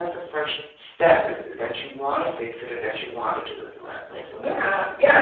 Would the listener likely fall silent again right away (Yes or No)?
No